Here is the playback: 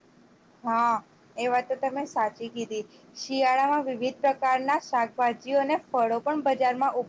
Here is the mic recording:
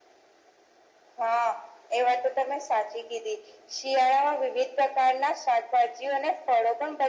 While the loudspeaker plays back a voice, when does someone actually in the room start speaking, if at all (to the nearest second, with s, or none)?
none